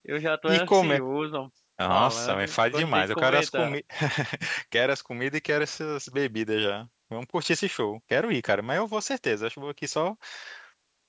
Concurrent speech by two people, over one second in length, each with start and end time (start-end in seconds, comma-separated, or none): 1.9-3.8